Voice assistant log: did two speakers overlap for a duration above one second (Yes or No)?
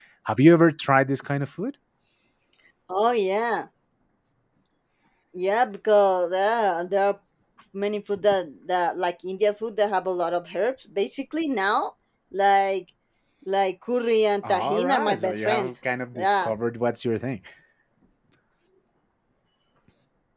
Yes